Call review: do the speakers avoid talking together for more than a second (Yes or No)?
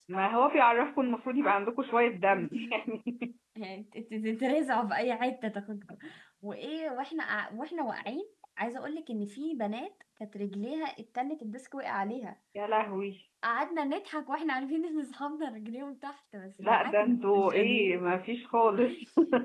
No